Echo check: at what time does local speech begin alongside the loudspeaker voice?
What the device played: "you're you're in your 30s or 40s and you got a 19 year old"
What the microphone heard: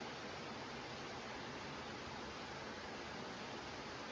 none

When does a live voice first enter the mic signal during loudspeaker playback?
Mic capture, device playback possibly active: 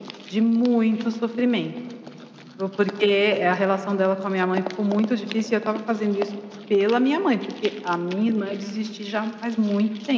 none

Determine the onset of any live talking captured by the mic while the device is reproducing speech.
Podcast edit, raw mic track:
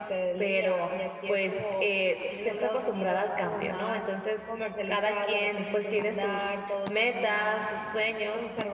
none

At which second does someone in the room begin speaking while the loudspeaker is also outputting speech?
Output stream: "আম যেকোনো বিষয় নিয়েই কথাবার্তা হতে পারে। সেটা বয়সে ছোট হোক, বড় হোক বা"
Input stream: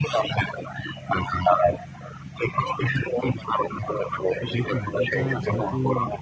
4 s

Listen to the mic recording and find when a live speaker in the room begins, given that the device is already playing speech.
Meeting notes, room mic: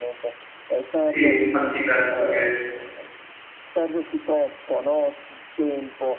1 s

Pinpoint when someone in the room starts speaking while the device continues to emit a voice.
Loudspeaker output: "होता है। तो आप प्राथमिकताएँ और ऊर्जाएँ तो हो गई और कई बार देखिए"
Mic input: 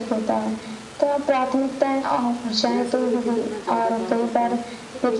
3 s

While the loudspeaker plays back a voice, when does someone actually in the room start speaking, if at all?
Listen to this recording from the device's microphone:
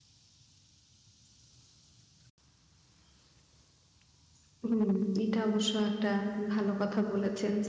5 s

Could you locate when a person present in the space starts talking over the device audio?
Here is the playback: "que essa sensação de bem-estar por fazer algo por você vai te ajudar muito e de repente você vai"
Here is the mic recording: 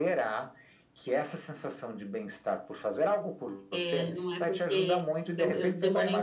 4 s

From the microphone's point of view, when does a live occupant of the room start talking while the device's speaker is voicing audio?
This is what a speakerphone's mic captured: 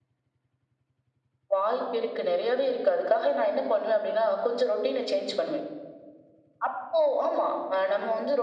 none

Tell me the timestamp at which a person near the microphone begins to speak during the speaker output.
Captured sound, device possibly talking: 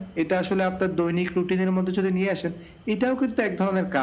none

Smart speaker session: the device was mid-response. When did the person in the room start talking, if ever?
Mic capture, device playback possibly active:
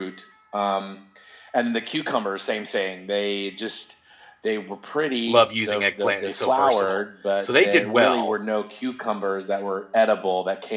5 s

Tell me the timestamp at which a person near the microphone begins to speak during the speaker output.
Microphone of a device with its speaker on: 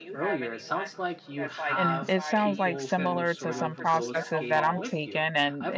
2 s

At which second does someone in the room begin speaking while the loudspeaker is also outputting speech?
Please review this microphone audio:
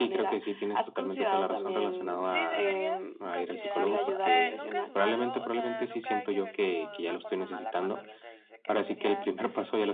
2 s

